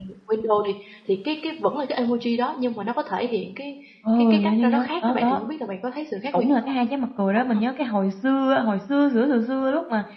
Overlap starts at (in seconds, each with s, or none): 4.2 s